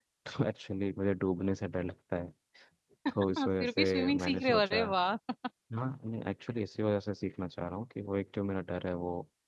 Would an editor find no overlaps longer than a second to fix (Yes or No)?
No